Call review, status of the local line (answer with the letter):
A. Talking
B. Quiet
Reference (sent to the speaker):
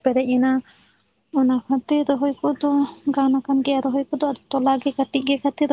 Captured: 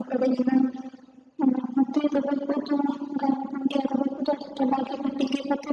B